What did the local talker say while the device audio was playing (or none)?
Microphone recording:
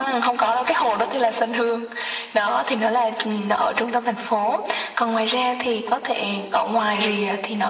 none